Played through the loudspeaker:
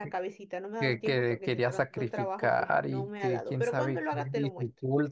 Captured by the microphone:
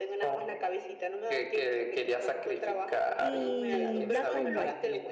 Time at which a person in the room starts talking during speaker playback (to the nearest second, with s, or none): 3 s